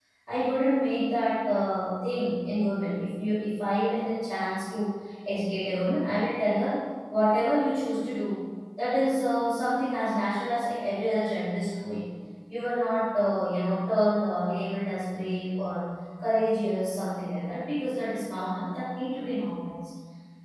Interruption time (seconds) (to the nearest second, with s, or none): none